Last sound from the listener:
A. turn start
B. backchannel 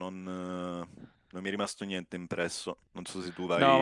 A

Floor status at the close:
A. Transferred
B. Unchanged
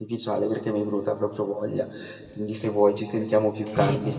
A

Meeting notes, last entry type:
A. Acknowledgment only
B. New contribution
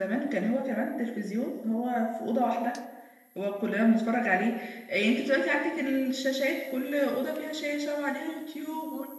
A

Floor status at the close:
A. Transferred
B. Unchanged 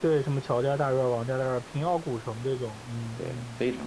A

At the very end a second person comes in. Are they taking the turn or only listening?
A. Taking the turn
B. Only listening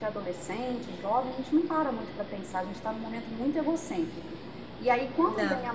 B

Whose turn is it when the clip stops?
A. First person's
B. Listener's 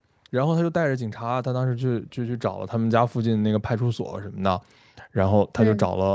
A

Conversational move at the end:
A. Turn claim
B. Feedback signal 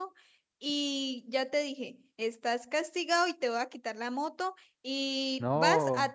B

